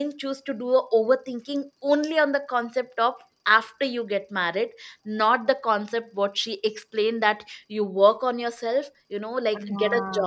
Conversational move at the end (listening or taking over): listening